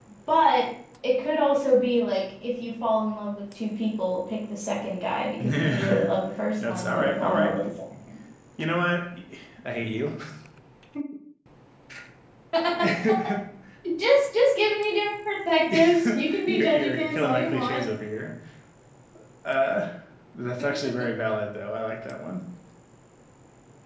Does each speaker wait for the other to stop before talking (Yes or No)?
No